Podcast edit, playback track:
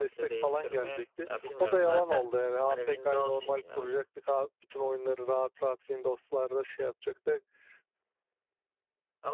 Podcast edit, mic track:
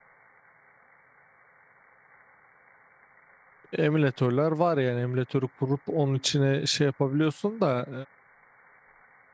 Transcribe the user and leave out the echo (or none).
emülatörler var yani emülatörü kurup onun içine şey yapabiliyorsun da